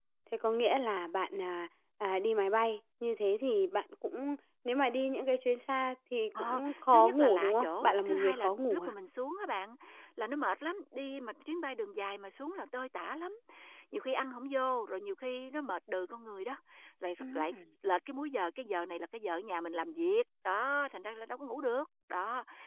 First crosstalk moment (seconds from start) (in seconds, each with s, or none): 6.4 s